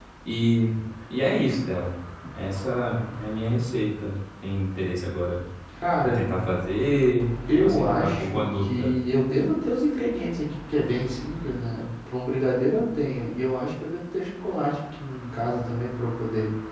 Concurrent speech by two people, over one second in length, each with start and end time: 7.6-9.0

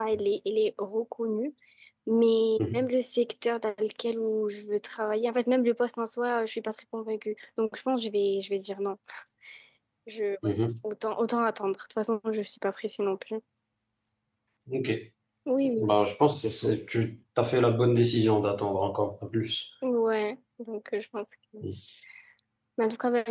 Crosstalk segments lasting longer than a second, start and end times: none

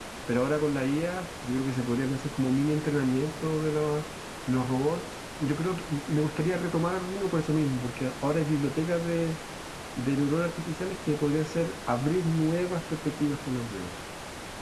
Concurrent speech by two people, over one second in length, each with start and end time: none

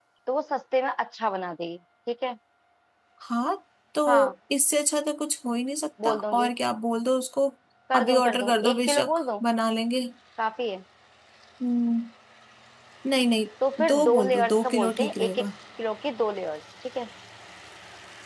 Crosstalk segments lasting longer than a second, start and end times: 7.9-9.2, 13.8-15.5

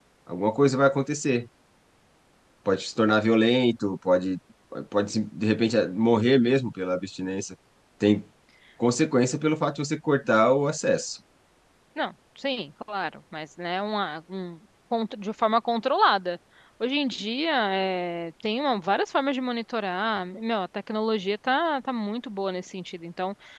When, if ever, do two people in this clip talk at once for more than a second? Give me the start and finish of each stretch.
none

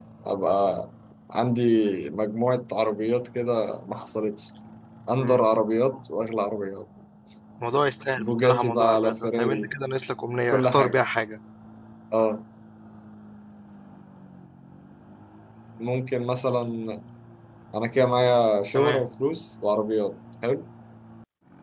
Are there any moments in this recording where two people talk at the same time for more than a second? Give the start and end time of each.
8.2-9.7

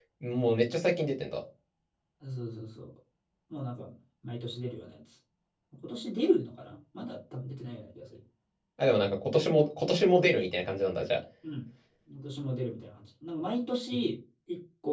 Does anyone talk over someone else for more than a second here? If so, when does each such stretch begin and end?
none

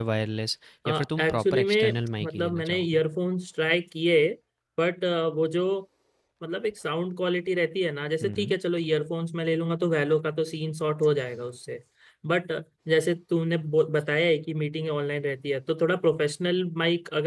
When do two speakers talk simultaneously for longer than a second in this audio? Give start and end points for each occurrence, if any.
0.9-3.0

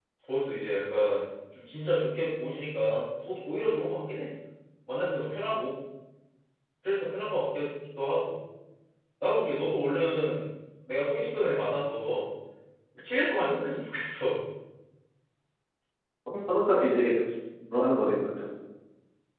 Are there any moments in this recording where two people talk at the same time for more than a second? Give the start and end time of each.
none

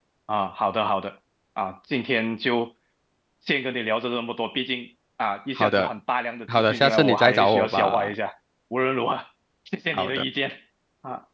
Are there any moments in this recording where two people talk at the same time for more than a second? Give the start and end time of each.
6.6-8.1

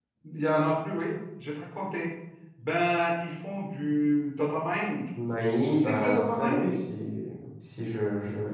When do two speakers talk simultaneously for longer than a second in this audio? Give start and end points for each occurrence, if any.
5.4-6.7

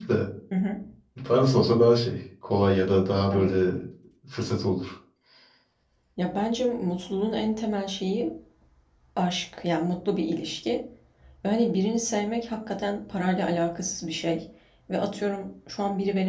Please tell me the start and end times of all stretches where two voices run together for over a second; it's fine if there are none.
none

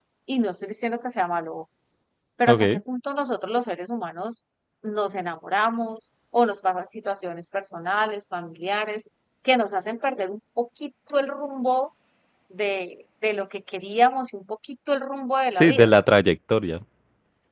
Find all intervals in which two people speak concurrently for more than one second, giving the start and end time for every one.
none

